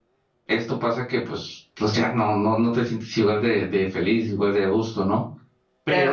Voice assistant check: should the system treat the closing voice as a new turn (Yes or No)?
Yes